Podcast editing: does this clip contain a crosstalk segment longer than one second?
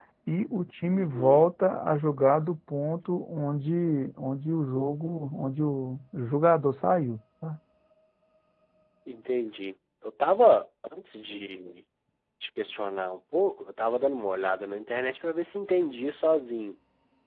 No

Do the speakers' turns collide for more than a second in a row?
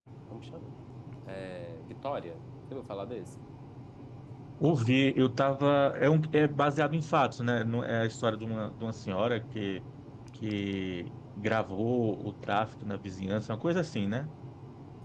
No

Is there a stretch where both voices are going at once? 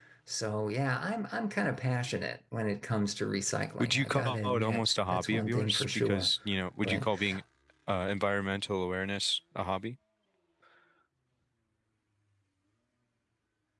Yes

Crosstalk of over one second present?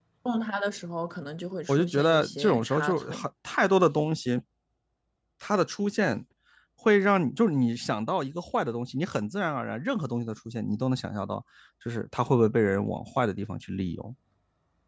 Yes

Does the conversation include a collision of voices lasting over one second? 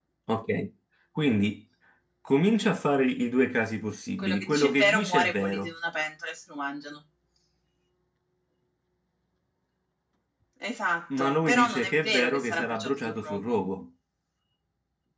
Yes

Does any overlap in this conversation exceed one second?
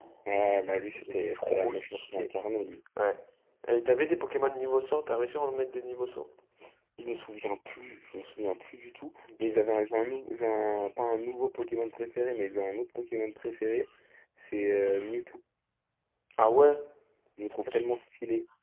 Yes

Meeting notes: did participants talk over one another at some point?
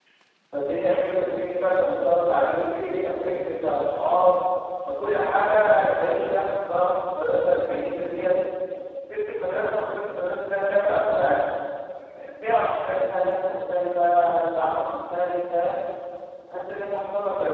No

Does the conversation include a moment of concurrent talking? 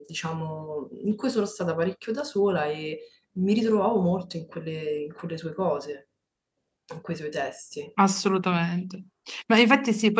No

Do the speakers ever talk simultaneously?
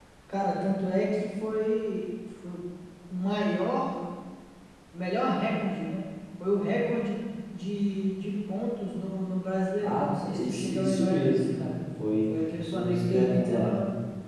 Yes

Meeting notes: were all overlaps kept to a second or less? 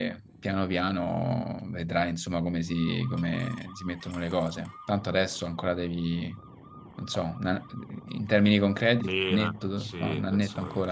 No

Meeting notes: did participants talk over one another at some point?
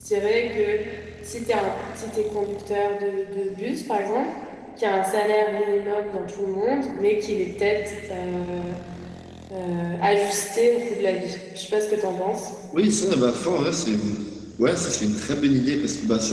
No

